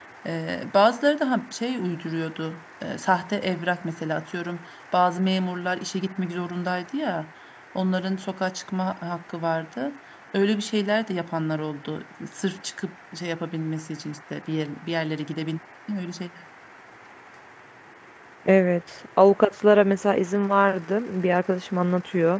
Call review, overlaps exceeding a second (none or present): none